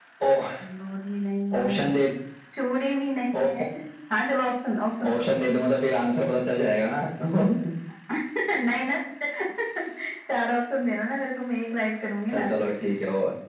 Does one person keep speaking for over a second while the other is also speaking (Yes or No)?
No